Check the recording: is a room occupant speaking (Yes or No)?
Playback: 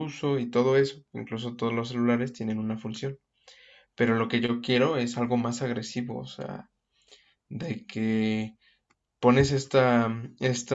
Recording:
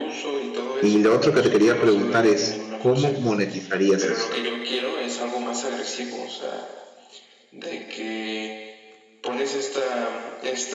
Yes